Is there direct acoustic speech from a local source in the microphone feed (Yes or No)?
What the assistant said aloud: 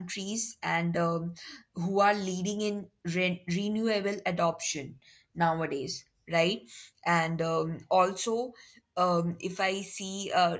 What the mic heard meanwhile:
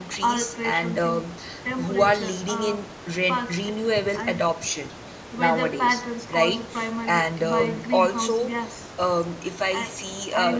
Yes